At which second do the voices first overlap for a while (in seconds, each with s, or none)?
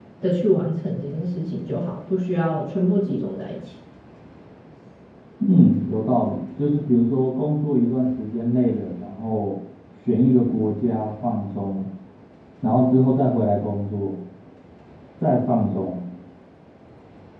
none